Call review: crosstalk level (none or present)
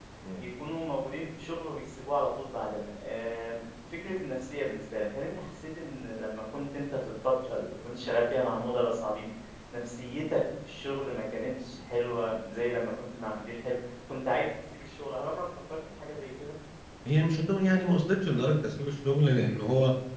none